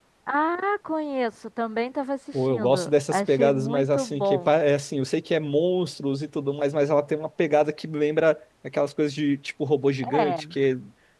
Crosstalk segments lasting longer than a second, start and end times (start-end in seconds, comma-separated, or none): 2.5-4.5